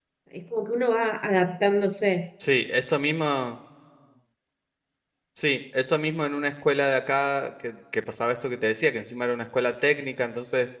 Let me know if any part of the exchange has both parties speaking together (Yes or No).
No